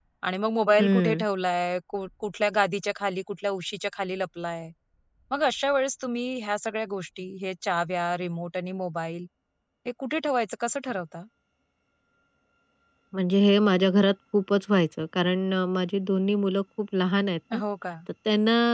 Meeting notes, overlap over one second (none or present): none